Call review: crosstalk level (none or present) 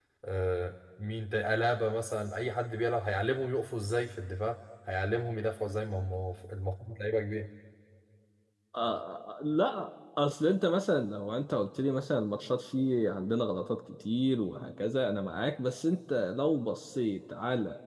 none